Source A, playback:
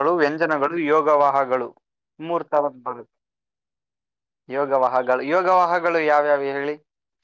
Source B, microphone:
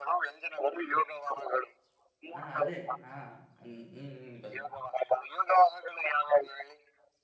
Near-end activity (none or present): present